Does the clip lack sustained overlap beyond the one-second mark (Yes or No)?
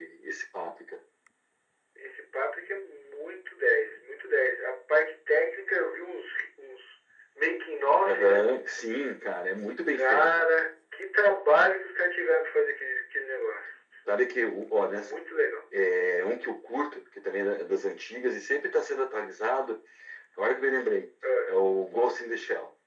Yes